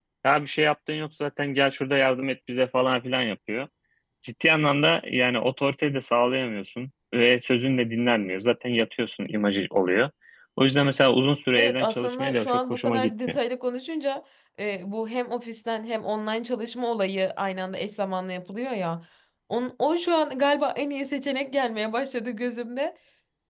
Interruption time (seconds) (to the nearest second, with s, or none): 12 s